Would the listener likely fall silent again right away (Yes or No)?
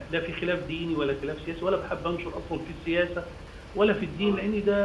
Yes